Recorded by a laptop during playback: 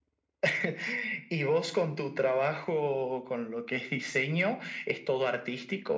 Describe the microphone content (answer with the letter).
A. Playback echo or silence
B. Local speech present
A